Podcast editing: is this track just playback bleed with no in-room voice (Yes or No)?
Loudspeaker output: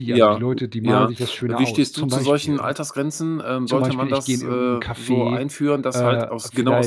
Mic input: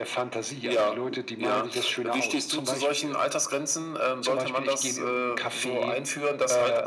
Yes